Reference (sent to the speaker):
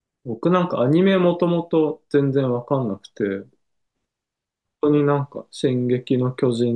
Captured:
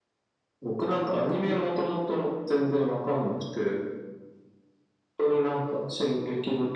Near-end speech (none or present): none